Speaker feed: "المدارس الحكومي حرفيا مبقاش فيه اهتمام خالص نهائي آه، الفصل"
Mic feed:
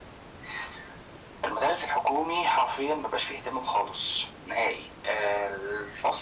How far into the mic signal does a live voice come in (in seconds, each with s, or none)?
none